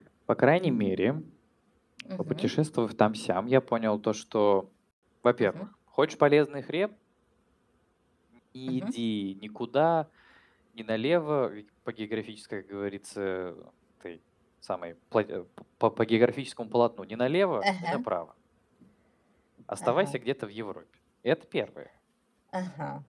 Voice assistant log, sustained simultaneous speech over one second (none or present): none